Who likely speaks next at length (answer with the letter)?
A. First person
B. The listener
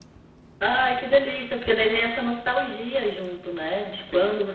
A